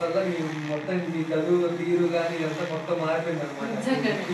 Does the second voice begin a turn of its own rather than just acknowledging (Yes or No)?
Yes